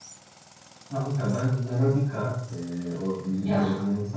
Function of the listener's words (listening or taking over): listening